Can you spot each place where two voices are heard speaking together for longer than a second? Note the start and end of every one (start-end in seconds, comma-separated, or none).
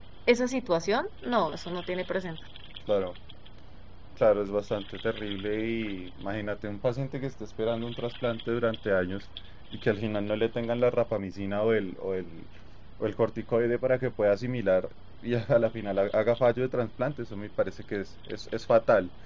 none